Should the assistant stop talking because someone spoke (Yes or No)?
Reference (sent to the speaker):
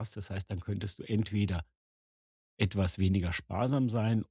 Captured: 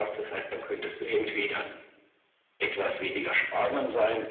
No